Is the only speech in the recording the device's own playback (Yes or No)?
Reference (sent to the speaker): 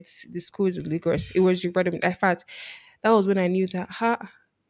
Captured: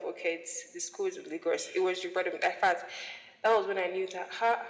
Yes